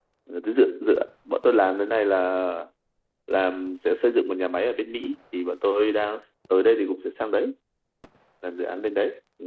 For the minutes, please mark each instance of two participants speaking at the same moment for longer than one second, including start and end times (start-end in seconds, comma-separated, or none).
none